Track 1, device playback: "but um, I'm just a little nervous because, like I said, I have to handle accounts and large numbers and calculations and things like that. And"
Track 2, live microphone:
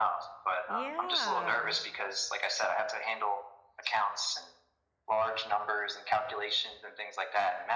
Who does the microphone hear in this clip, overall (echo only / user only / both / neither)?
both